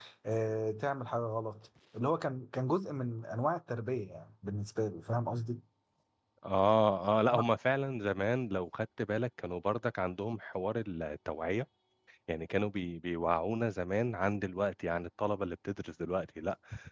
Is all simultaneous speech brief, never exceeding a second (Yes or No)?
Yes